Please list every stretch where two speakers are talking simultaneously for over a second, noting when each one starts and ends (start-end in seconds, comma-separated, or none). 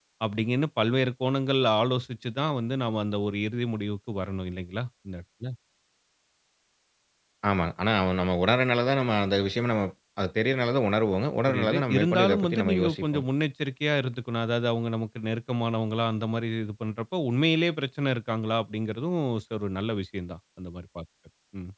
11.5-13.2